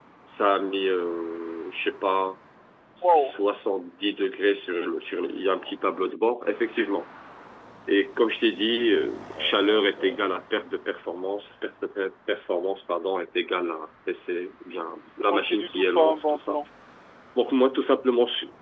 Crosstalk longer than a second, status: present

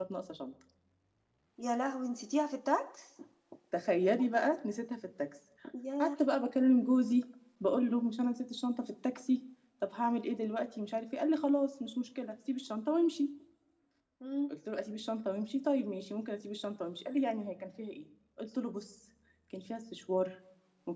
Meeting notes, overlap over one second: none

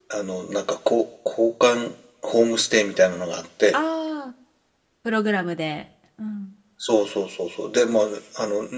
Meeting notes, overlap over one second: none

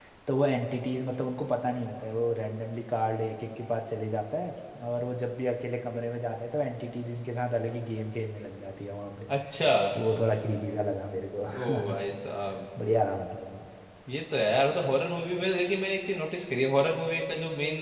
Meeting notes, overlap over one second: none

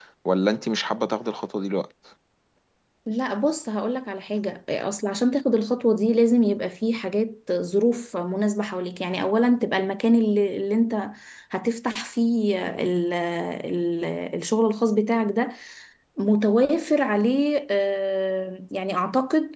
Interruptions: none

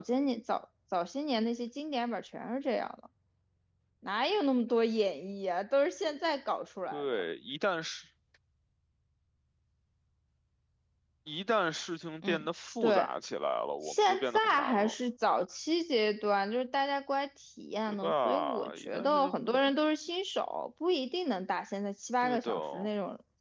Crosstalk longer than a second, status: present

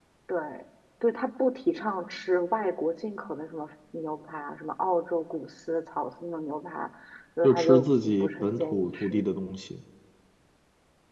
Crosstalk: present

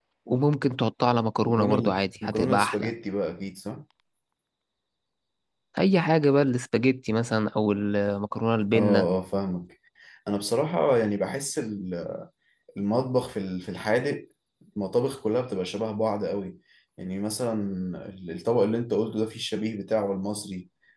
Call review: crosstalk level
present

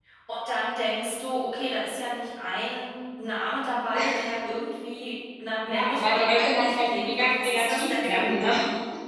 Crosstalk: present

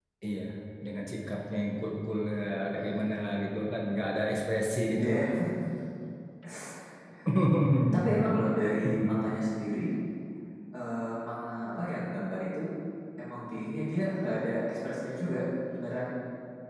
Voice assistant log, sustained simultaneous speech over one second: none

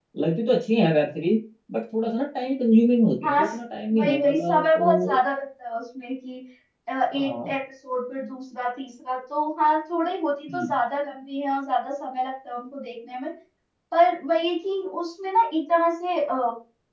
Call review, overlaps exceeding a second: present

